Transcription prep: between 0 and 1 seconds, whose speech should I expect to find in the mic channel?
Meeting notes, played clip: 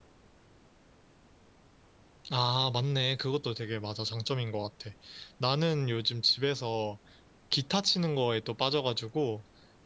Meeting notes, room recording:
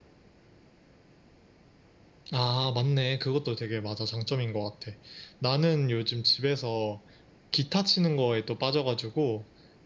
neither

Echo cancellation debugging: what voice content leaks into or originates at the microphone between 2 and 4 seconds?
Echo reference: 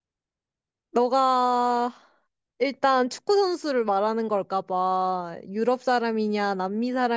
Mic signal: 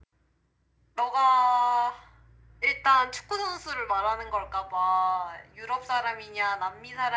echo only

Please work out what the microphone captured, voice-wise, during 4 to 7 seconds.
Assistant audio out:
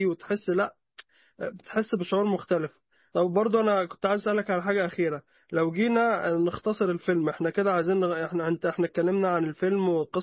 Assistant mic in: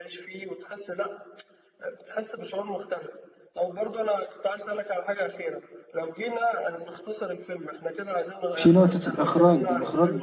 echo only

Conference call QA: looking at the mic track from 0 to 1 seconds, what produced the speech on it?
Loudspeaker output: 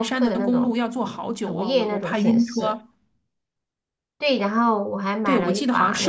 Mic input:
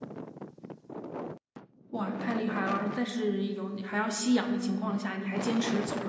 neither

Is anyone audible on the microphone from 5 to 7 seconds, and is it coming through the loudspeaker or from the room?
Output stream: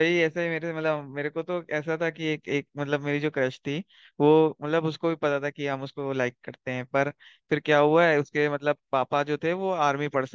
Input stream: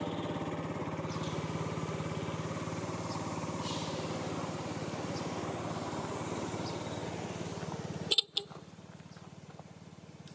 neither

